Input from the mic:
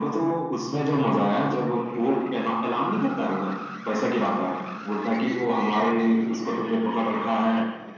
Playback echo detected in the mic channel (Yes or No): Yes